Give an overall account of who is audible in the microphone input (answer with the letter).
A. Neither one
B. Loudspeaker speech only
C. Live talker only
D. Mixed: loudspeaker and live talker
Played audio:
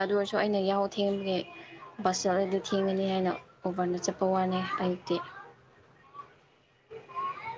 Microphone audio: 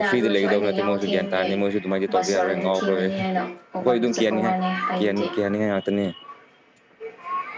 D